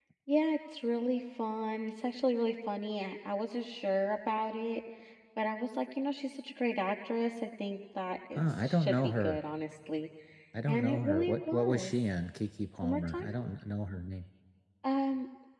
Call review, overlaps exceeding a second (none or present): present